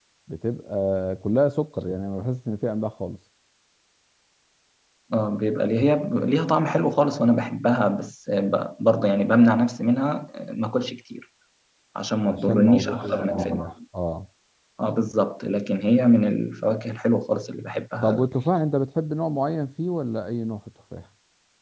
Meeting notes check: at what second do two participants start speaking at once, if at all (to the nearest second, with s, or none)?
12 s